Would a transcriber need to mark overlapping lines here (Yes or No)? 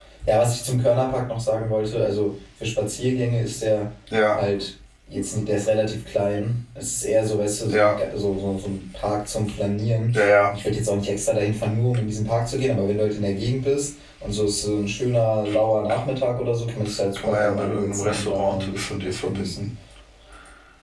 Yes